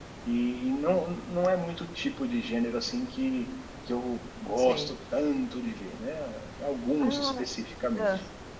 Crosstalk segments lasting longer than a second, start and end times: none

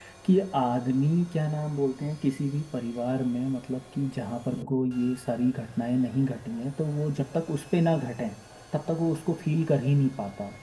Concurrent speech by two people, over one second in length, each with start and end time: none

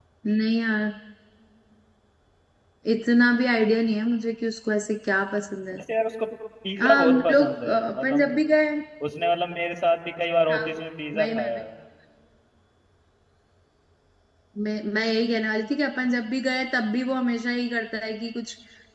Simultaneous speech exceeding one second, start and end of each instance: 6.8-8.4

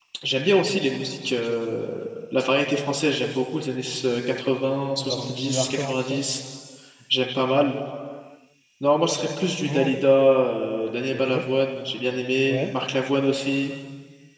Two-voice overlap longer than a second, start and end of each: 5.0-6.2

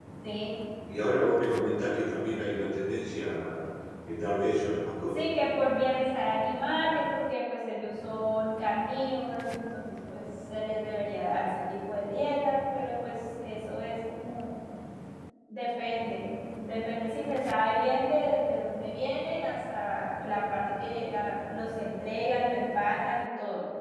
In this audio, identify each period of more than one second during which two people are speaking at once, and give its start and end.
none

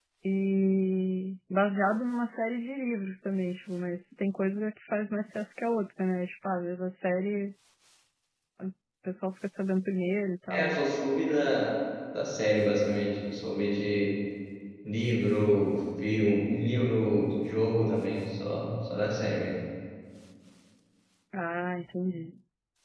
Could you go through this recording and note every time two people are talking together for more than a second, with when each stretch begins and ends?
none

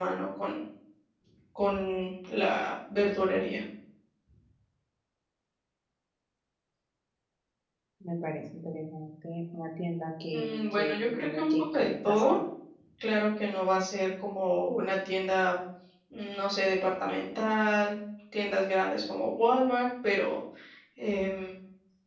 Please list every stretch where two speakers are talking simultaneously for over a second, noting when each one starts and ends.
10.3-12.2

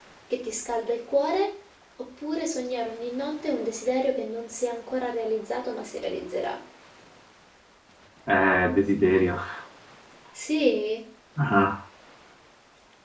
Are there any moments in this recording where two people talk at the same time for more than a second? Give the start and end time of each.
none

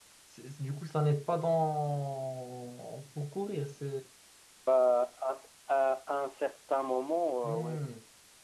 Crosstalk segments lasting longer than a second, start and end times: none

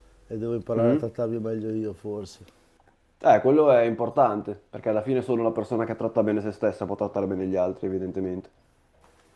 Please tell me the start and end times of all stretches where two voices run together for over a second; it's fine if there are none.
none

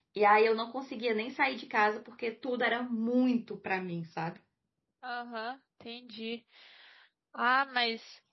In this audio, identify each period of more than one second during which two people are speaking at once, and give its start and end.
none

